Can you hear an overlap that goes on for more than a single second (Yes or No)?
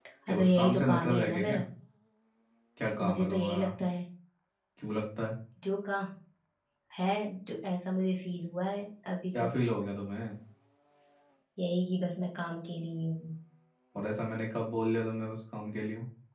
Yes